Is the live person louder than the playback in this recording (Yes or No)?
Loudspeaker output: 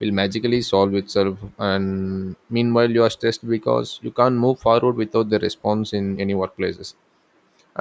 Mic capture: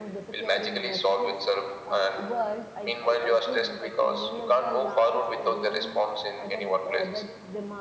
No